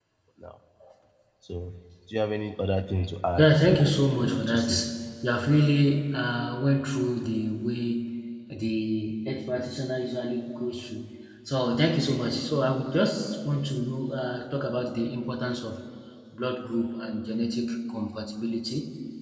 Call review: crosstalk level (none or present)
present